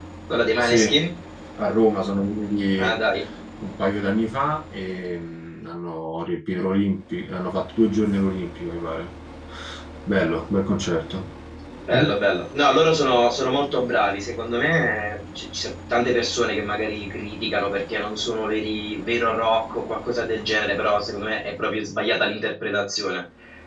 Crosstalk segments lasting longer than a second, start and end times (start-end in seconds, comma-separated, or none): none